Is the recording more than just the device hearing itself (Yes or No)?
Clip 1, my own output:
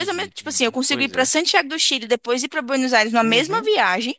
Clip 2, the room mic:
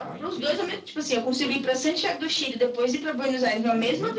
No